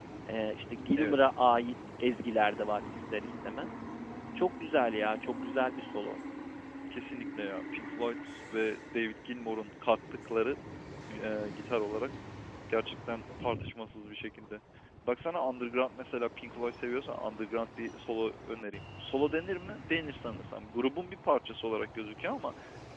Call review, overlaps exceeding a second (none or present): none